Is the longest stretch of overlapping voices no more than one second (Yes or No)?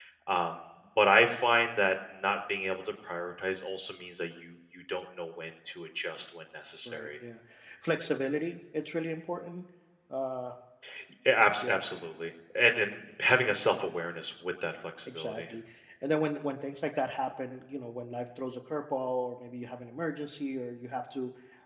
Yes